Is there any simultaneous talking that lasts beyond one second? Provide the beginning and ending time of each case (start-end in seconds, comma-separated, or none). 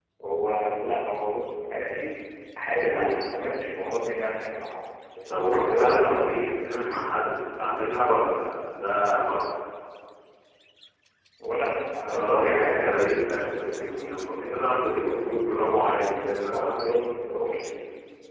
5.3-7.0, 12.1-15.4